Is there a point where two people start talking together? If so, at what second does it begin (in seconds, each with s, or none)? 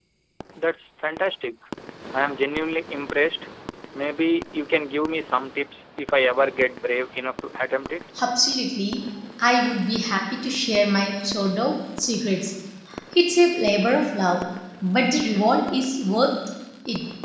none